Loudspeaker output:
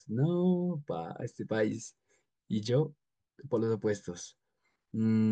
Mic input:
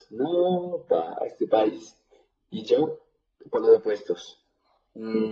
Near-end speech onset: none

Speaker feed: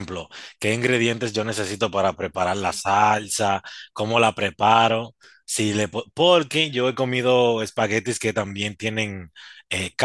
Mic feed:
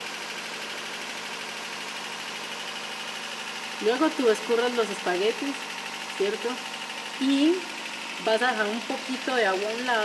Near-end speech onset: 3.8 s

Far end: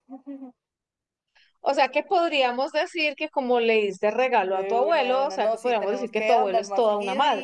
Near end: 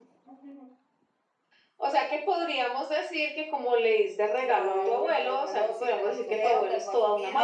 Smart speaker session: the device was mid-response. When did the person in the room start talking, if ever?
4.4 s

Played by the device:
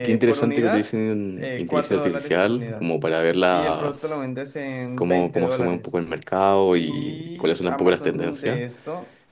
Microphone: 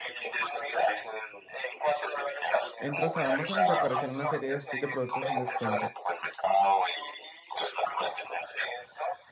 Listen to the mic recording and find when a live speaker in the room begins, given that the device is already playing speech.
2.8 s

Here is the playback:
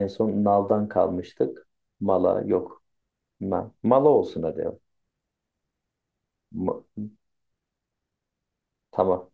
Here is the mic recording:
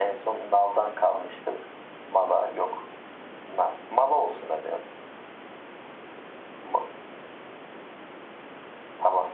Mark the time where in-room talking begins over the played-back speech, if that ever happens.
none

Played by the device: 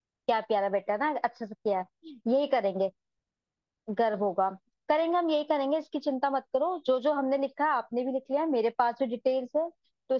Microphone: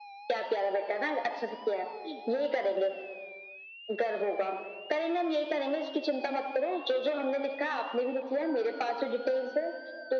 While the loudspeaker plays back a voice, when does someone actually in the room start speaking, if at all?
none

